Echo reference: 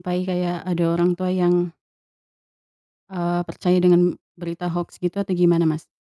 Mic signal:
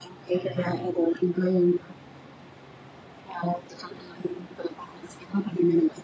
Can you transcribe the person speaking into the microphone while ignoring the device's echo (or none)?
Mmm, mhm.